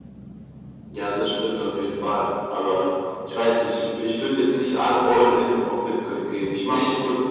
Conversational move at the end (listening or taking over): listening